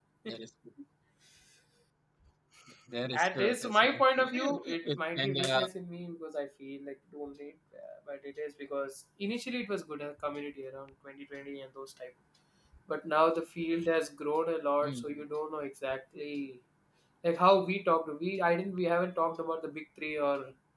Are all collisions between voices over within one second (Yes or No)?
No